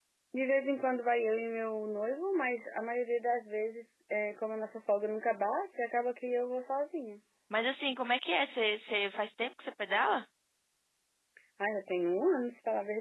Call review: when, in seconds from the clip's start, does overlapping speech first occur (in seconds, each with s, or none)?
none